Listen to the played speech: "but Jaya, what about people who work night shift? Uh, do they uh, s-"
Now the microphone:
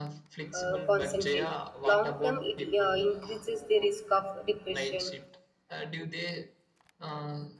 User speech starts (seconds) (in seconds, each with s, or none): 0.5 s